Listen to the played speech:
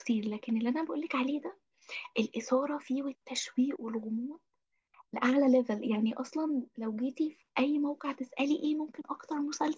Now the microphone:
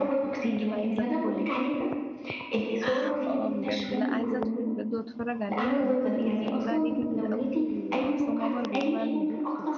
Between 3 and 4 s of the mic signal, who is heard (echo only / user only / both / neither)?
both